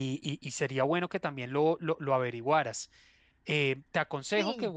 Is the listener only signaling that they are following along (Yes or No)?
Yes